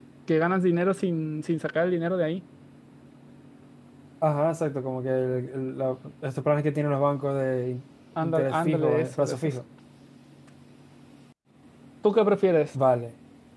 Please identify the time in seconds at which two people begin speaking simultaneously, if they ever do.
8.2 s

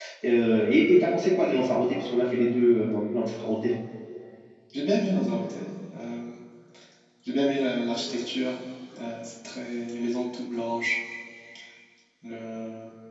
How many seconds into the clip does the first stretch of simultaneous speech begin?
none

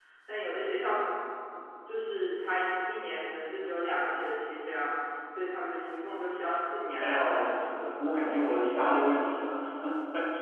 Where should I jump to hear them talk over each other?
7.0 s

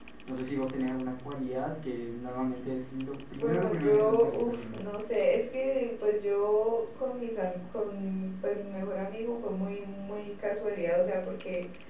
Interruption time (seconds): 3.4 s

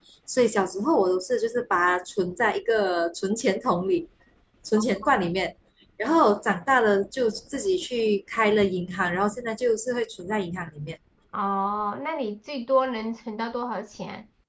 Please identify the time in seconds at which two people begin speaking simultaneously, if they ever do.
none

